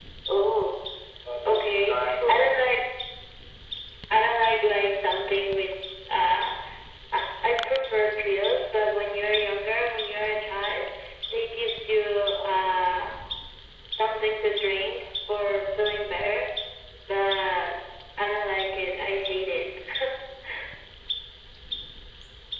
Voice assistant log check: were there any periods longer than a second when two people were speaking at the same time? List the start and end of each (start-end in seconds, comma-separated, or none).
1.4-2.8